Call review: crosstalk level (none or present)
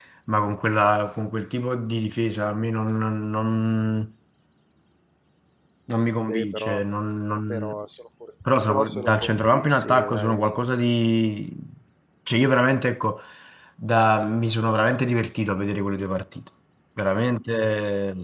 present